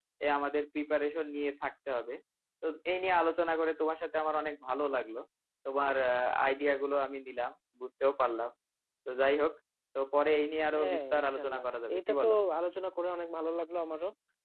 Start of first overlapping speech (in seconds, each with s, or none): 10.8 s